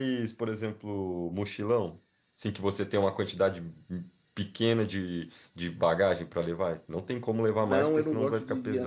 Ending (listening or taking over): taking over